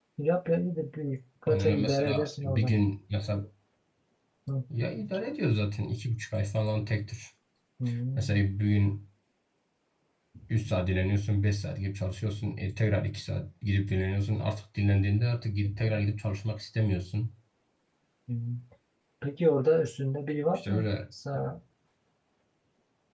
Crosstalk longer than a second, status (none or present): present